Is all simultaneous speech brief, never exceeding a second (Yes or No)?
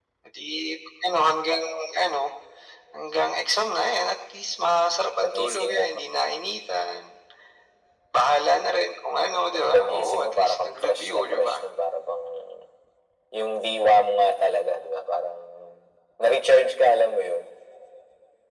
No